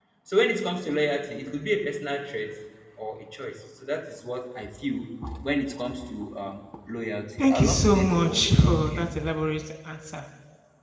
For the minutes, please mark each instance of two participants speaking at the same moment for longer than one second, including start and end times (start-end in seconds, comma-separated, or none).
7.4-9.1